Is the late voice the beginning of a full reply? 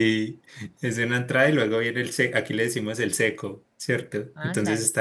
No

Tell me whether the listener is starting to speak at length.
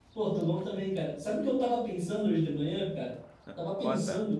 No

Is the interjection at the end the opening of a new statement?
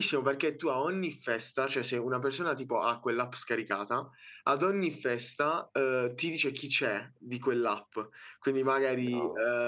No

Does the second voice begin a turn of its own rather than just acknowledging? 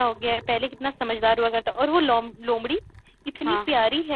No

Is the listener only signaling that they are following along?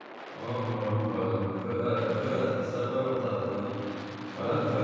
Yes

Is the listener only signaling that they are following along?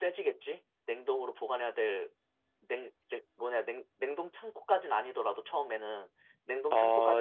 No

